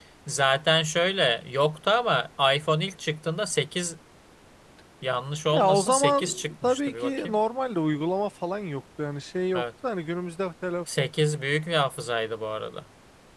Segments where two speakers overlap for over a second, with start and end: 5.5-7.4

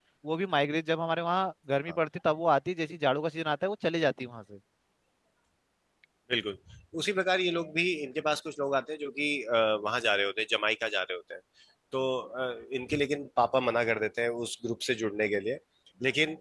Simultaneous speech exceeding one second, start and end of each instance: none

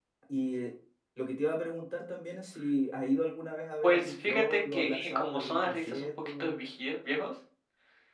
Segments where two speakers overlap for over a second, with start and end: 3.8-6.6

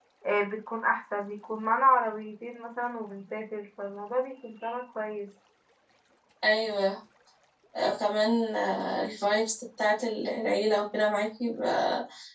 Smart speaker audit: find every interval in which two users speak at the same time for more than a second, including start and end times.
none

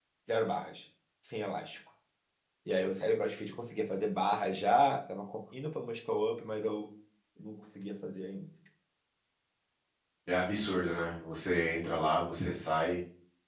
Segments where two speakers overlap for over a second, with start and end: none

